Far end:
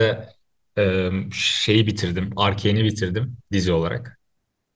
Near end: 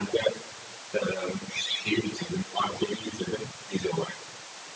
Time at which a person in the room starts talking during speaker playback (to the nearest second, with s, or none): none